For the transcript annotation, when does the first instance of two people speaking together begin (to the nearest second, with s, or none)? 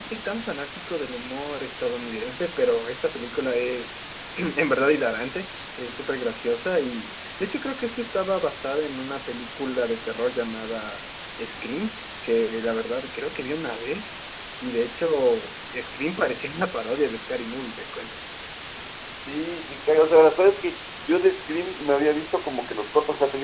none